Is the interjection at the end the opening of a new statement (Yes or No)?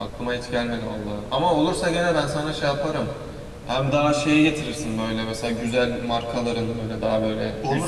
No